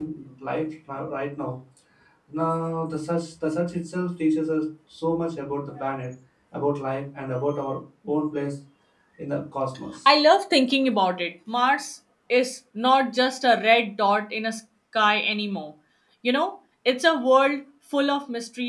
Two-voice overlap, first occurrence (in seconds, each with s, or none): none